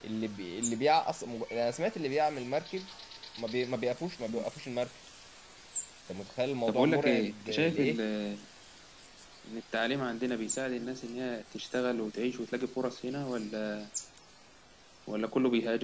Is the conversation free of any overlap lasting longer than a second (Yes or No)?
No